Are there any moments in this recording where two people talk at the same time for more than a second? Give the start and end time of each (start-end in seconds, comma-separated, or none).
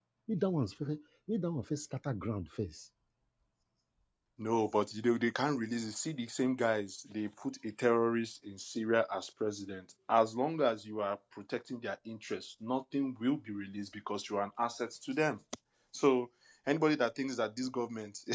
none